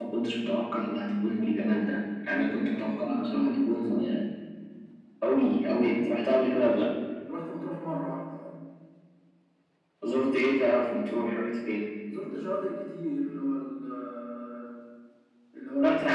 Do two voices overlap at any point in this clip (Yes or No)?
Yes